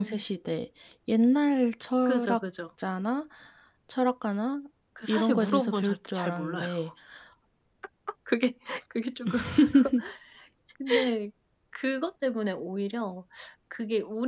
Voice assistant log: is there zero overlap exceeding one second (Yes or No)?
No